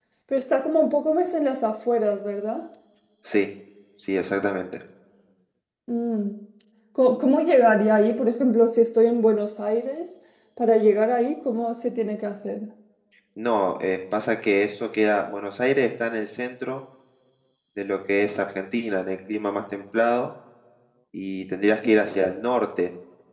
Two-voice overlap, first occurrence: none

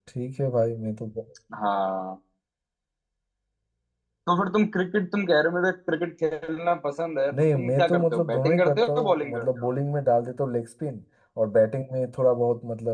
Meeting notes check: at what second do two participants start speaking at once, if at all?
7.3 s

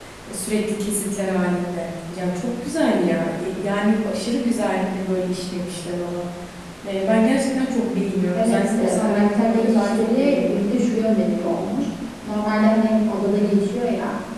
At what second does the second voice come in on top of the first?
8.3 s

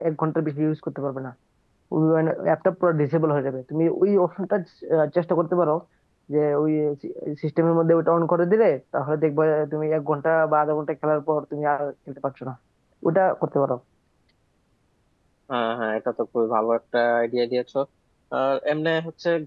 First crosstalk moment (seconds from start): none

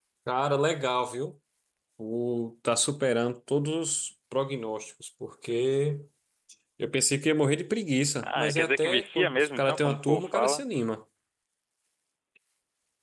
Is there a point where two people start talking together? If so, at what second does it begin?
8.2 s

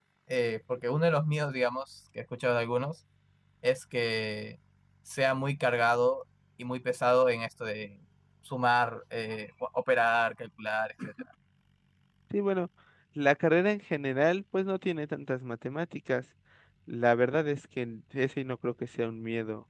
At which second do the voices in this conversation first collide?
none

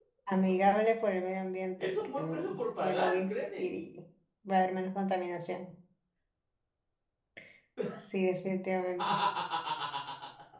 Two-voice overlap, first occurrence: 1.8 s

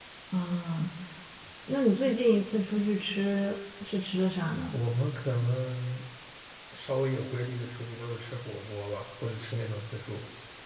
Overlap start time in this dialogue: none

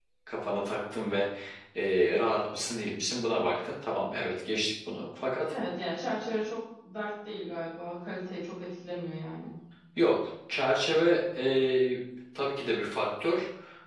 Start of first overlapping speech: none

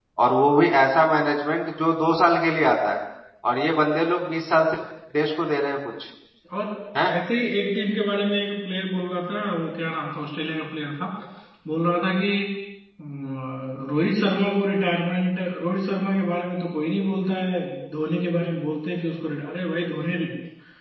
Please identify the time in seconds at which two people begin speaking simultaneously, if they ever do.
none

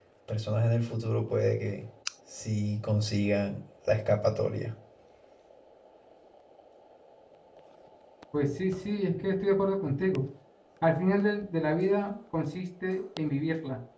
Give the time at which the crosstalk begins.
none

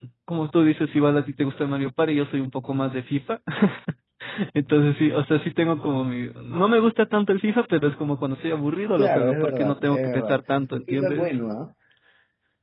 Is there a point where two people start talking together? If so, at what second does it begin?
9.0 s

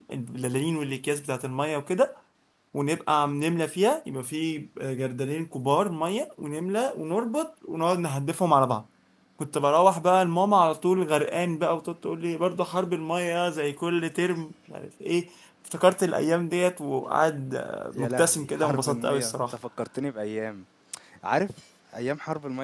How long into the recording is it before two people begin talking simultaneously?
17.9 s

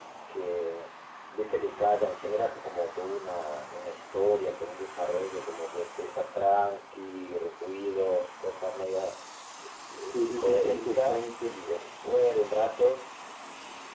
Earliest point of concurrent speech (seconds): 10.1 s

